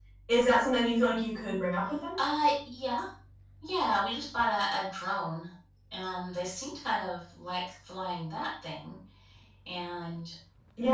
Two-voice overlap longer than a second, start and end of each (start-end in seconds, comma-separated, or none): none